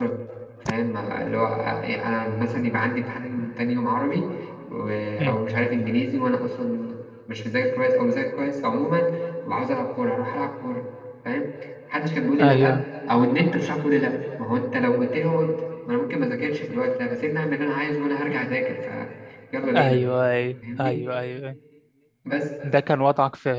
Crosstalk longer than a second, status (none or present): none